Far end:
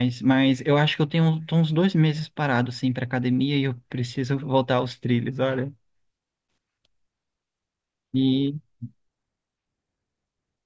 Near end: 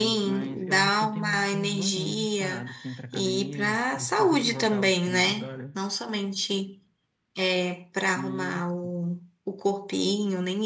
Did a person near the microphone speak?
Yes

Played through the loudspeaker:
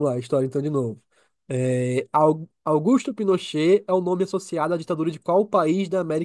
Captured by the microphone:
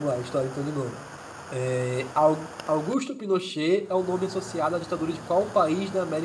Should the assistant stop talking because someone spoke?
No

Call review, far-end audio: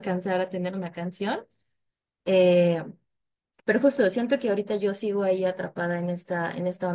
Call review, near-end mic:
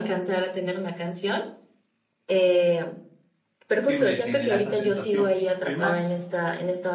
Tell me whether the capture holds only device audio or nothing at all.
No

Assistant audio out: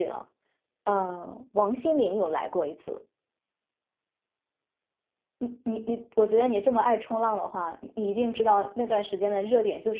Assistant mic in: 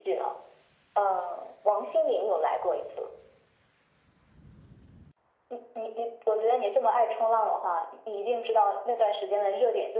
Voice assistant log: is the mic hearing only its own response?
Yes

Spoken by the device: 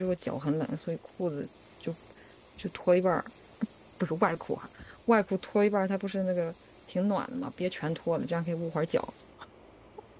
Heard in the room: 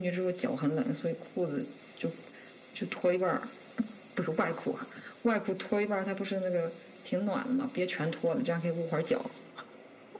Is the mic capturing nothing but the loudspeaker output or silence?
Yes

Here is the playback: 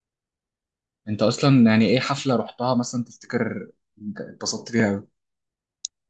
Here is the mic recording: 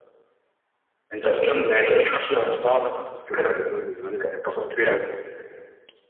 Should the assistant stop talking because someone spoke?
Yes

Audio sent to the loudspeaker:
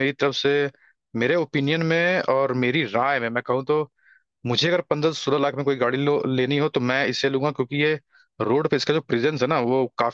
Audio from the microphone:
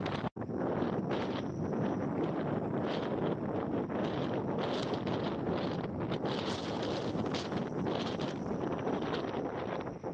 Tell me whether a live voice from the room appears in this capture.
No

